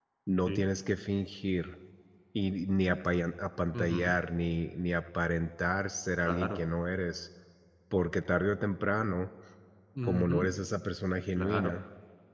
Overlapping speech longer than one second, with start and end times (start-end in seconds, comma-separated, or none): none